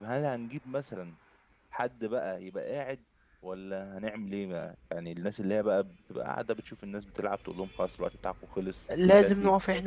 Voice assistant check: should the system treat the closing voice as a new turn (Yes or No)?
Yes